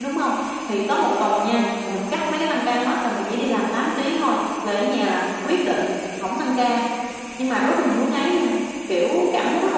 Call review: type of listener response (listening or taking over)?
listening